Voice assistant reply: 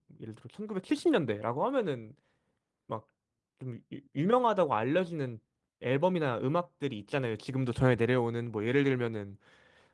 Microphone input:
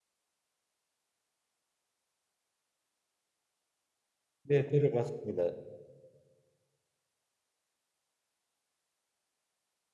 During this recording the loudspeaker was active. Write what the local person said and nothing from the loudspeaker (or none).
네, 들어봤습니다.